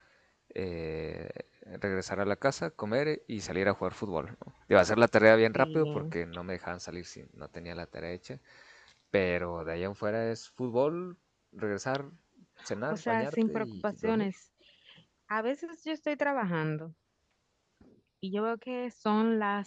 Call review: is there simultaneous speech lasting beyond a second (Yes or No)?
Yes